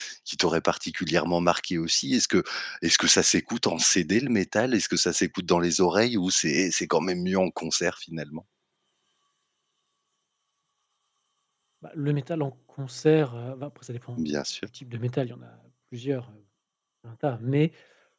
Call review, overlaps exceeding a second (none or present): none